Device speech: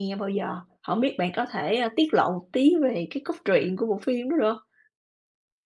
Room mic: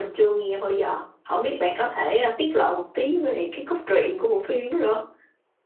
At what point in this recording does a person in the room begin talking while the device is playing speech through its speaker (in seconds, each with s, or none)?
none